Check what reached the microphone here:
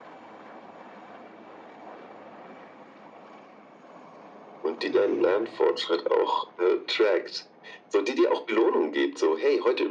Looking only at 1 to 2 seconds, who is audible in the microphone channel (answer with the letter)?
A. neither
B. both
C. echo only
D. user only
A